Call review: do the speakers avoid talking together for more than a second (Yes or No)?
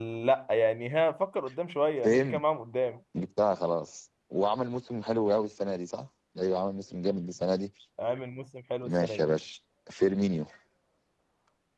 Yes